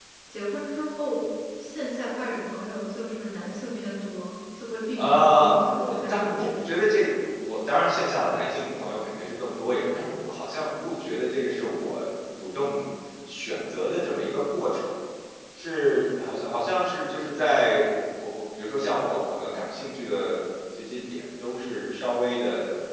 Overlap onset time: 5 s

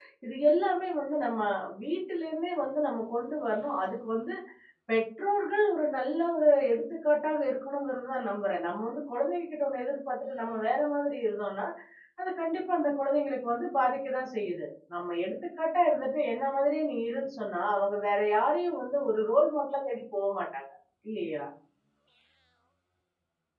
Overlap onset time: none

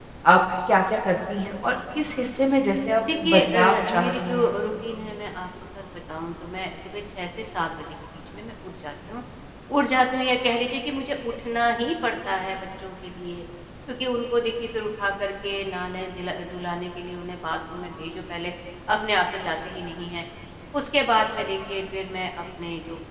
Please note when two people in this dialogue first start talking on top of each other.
3 s

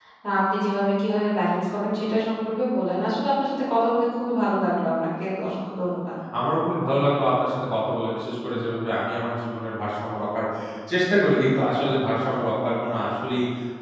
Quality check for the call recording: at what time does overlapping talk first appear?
none

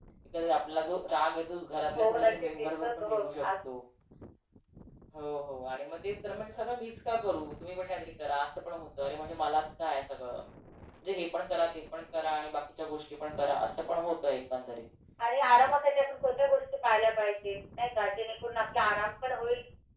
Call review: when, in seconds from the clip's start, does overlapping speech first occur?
2 s

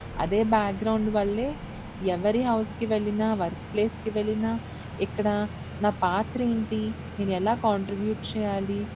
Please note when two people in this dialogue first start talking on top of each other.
none

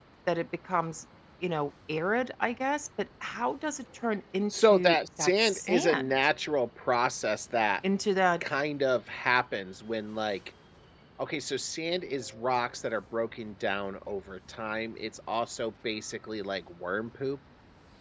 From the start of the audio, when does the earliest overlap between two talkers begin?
5 s

